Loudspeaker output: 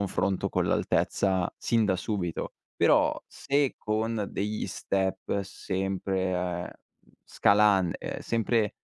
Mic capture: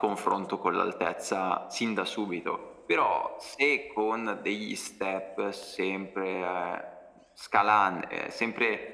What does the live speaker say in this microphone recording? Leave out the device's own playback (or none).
none